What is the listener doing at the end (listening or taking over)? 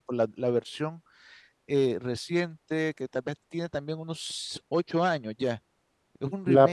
taking over